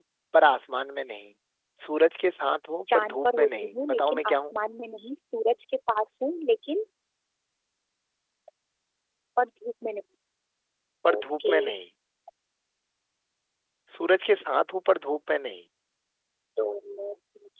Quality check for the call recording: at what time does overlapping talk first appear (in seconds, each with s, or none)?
2.9 s